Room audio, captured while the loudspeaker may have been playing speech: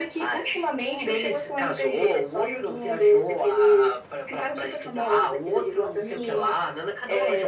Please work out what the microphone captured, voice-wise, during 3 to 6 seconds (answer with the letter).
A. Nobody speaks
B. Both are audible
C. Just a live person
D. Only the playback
D